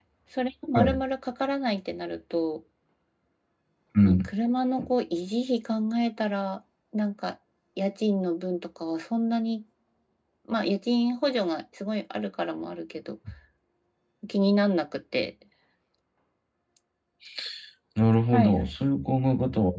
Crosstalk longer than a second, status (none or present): none